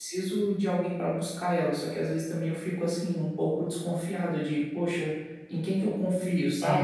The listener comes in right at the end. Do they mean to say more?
Yes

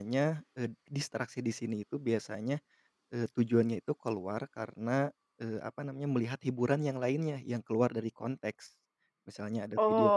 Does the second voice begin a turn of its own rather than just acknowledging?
Yes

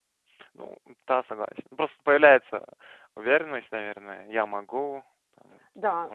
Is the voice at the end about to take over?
Yes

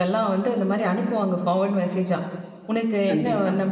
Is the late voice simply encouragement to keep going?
Yes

